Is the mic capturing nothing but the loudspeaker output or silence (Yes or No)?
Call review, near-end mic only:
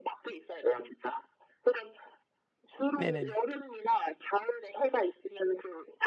No